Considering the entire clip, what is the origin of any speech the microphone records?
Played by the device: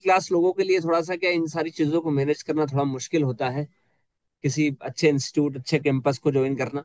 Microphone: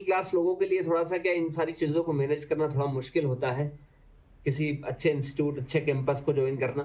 echo only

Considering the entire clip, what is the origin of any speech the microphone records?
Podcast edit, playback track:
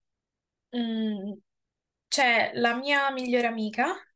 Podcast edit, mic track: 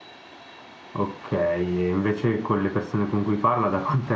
user only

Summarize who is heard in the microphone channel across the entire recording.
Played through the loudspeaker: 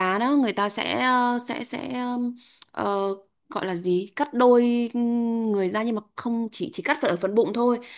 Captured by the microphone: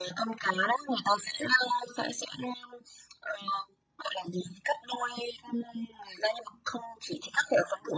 echo only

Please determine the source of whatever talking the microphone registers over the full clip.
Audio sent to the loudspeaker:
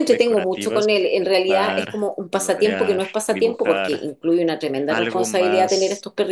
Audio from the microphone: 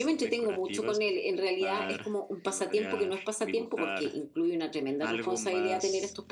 echo only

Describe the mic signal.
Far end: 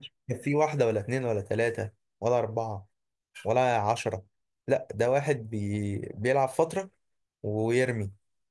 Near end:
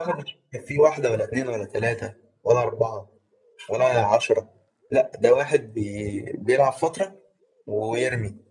echo only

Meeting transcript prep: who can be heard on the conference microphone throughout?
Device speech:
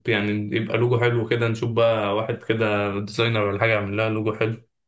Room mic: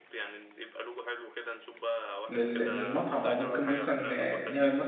both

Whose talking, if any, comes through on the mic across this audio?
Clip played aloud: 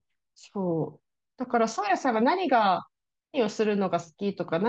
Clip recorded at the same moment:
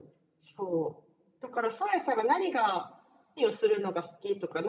echo only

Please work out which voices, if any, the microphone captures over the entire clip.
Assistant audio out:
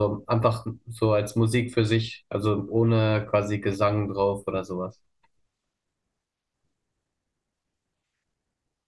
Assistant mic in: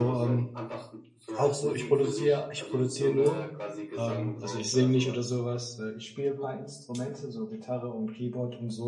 both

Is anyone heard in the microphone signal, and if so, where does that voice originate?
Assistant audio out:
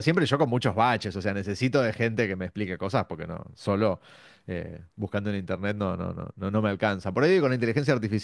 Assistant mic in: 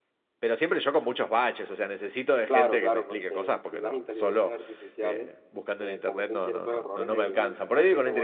both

